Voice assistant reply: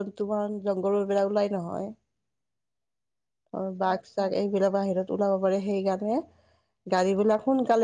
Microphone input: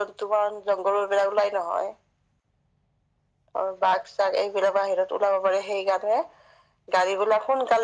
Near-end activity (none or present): none